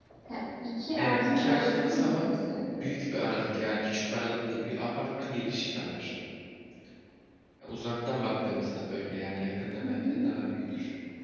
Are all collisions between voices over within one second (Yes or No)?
No